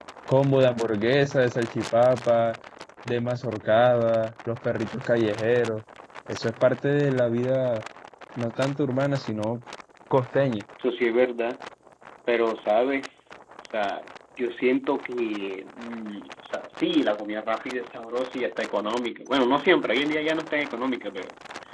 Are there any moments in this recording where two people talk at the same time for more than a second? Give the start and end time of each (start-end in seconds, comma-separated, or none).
none